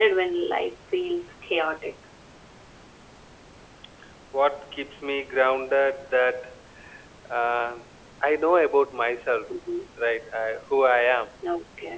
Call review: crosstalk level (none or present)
none